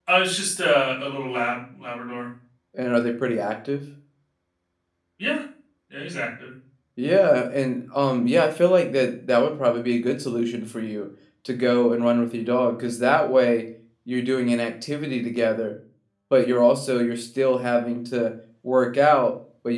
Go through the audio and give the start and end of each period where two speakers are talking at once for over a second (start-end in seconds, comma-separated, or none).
none